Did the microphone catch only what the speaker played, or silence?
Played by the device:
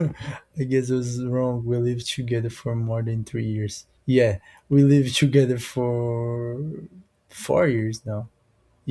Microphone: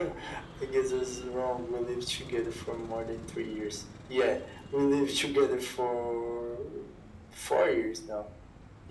Yes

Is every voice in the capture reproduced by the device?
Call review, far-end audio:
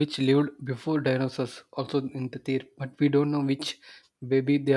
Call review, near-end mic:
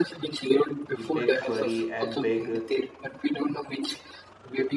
No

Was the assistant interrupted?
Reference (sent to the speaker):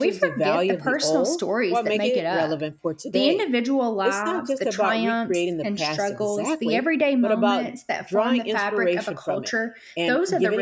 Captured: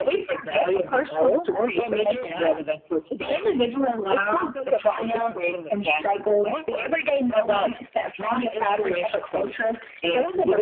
No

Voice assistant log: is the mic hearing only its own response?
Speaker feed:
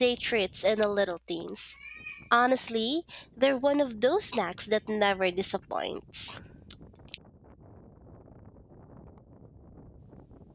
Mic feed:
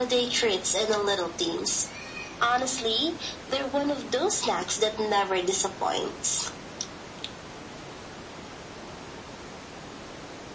Yes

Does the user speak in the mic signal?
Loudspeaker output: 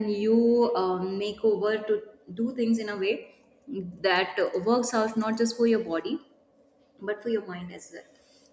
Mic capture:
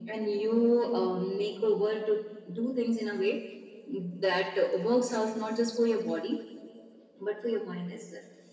No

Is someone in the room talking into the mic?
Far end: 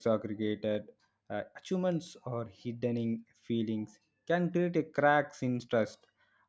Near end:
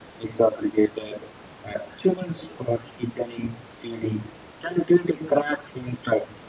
No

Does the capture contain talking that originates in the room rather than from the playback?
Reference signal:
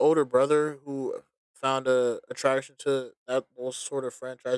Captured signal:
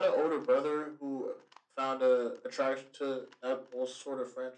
No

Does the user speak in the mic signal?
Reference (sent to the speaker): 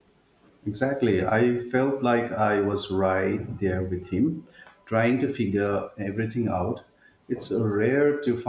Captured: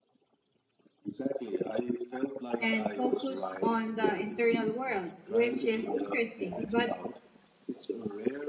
Yes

